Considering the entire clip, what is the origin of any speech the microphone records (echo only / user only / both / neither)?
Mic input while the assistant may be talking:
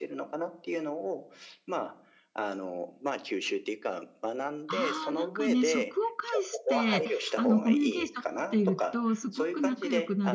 both